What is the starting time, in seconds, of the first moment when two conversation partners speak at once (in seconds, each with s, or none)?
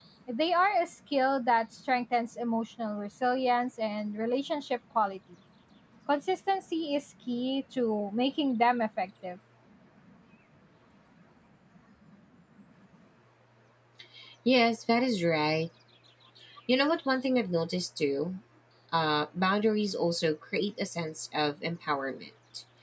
none